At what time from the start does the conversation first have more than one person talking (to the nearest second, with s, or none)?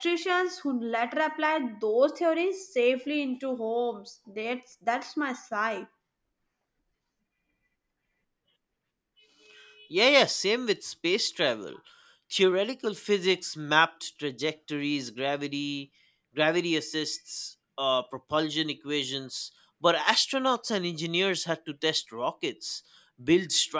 none